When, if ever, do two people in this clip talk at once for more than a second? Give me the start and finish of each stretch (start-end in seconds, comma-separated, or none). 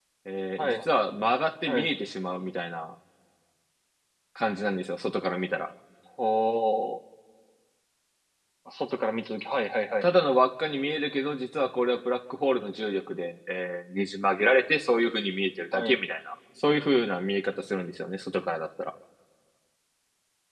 none